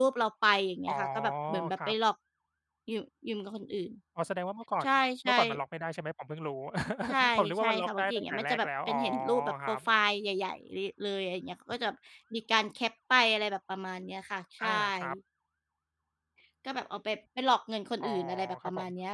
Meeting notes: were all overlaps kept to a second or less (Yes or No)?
No